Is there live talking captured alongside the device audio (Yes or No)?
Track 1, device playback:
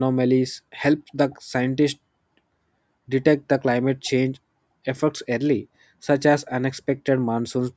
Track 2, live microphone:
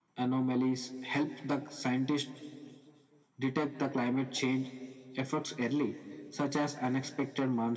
No